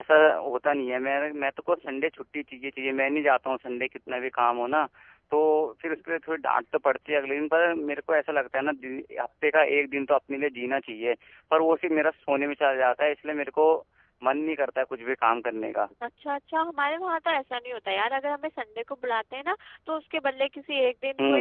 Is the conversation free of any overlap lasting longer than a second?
Yes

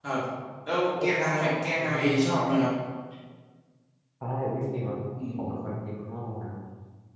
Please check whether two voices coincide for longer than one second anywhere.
Yes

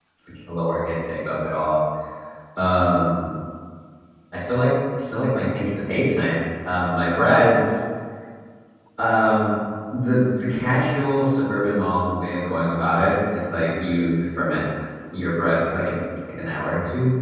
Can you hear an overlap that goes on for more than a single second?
No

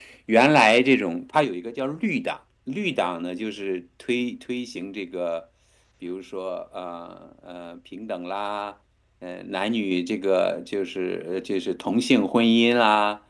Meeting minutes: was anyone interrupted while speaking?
No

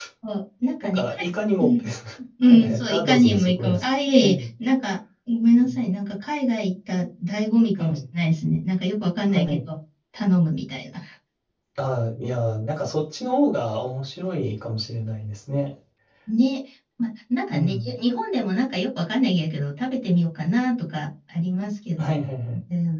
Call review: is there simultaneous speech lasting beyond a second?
Yes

